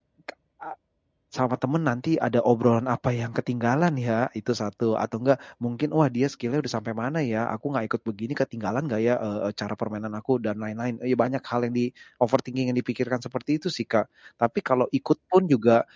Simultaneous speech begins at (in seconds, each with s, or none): none